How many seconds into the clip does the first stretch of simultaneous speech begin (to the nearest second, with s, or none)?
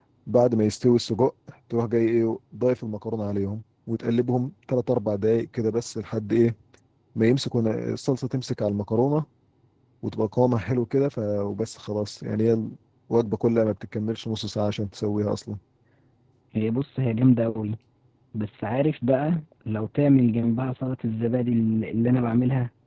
none